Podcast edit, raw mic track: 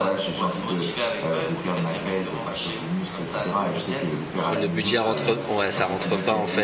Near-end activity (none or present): present